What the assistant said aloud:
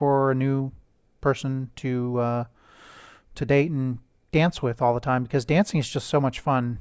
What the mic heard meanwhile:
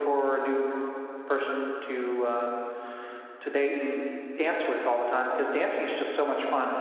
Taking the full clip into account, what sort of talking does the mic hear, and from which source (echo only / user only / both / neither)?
echo only